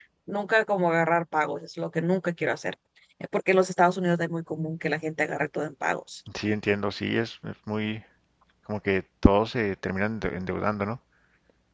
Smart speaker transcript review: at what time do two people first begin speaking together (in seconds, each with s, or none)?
none